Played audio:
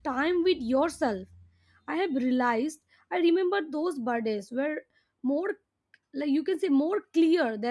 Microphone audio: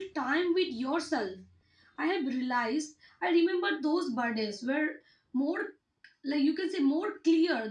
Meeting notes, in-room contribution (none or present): none